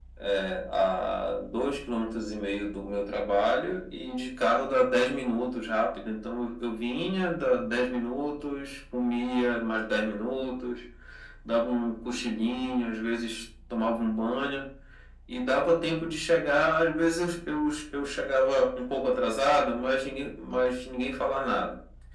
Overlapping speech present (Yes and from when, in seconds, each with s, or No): No